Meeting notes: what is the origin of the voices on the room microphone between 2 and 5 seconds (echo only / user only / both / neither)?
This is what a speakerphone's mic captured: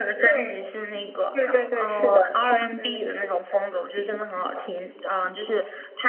echo only